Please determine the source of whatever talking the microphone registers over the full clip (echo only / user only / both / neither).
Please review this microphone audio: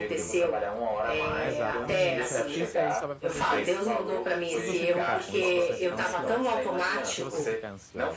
both